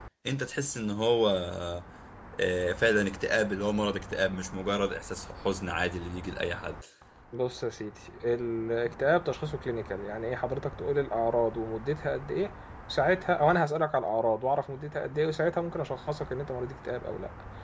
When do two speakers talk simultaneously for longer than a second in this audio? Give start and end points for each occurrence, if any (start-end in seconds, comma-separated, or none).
none